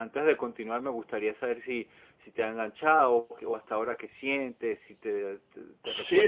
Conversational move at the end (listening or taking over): taking over